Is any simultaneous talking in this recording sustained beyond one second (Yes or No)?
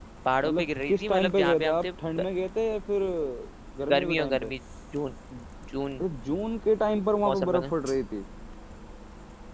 Yes